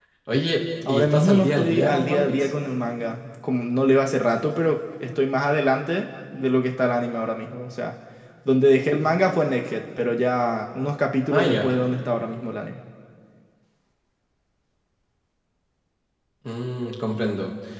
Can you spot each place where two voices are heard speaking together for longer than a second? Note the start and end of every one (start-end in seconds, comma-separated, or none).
0.9-2.5